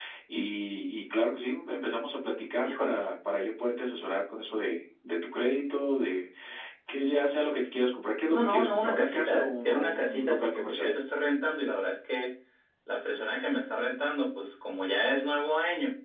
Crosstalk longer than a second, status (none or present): present